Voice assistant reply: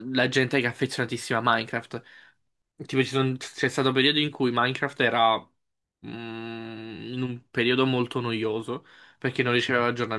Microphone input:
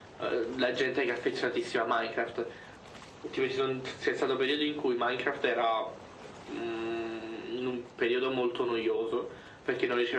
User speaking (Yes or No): No